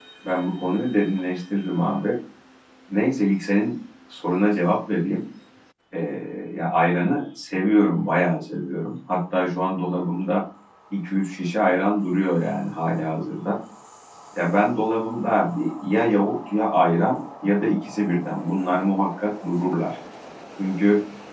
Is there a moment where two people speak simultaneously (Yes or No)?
No